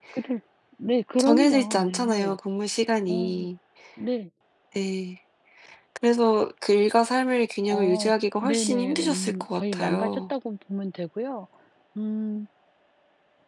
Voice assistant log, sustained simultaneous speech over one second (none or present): present